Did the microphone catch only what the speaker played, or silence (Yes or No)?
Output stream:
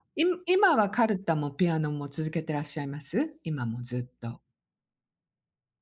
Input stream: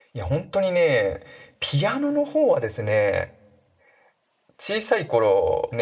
No